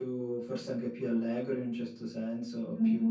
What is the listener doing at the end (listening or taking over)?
taking over